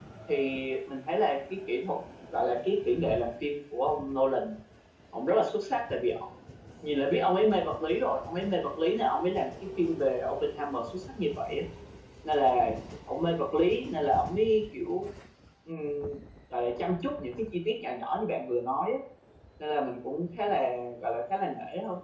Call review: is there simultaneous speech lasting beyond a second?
No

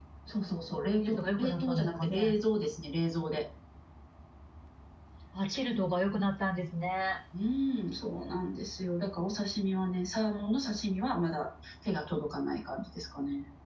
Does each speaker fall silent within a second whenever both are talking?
No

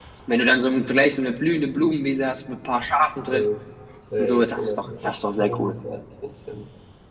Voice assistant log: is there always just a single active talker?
No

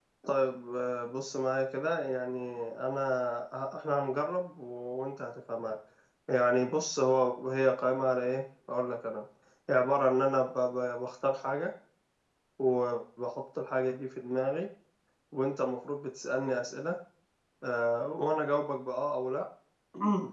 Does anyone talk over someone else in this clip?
No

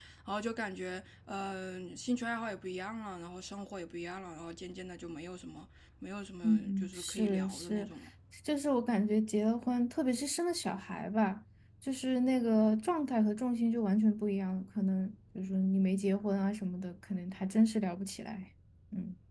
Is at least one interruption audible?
Yes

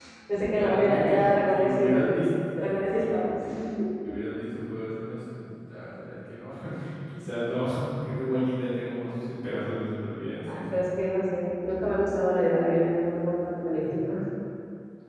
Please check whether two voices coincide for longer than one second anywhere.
Yes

